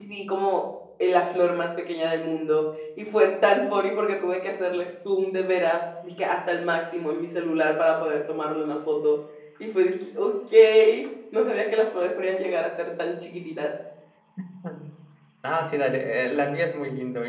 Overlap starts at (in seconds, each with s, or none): none